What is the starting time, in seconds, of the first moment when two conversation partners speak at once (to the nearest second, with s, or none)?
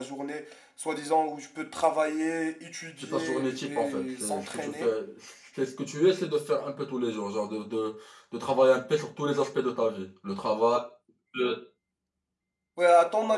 3 s